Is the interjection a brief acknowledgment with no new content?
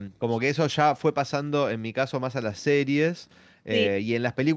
Yes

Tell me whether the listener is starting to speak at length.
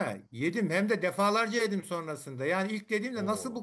No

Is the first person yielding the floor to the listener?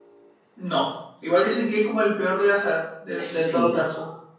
Yes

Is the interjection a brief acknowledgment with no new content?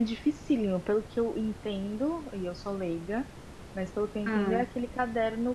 Yes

